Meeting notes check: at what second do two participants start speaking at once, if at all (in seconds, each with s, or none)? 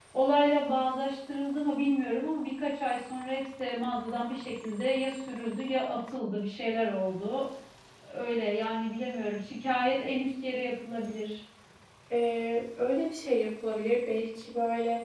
none